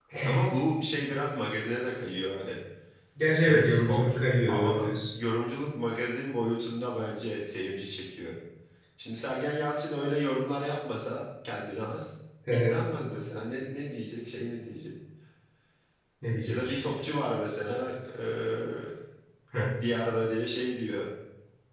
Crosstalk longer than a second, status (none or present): present